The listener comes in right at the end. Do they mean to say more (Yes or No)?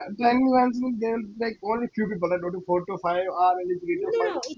Yes